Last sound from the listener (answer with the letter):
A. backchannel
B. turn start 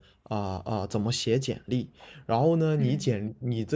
A